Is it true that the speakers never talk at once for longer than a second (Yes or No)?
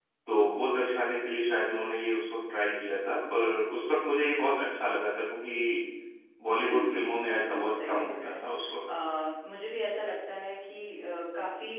No